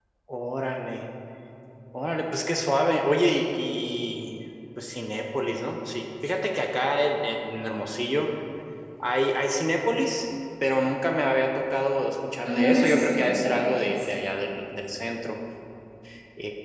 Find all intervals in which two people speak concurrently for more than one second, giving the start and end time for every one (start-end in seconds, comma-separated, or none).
12.4-14.2